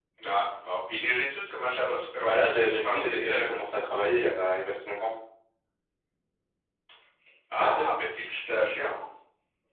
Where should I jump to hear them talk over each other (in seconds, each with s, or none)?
2.2 s